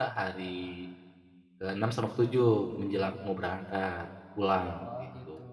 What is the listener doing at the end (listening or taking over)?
taking over